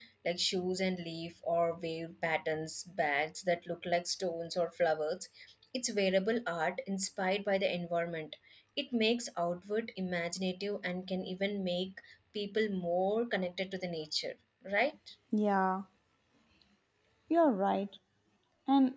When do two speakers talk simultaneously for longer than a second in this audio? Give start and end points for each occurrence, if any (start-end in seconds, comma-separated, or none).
none